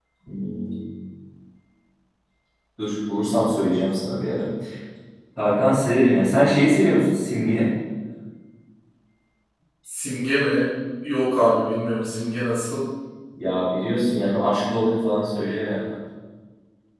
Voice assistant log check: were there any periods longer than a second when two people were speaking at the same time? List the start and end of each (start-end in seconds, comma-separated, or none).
none